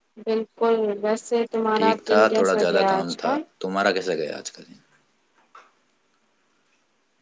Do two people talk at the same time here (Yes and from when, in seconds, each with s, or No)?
Yes, from 1.8 s